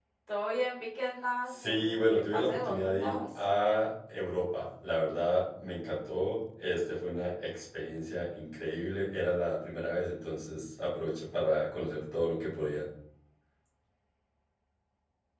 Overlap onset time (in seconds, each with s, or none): 1.5 s